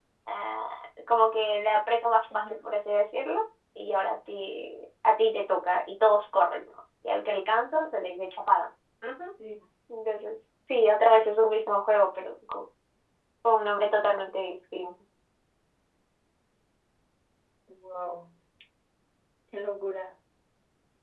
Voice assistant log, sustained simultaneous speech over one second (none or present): none